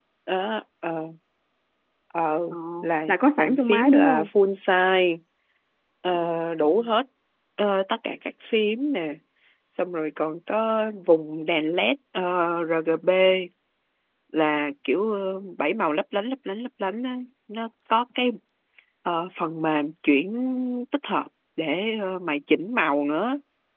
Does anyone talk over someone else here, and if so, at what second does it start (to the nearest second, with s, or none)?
3 s